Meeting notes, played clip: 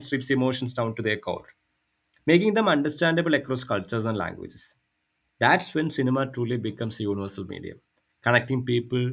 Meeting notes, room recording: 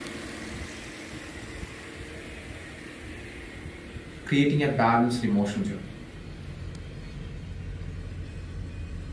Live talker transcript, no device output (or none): creating a balanced emotional journey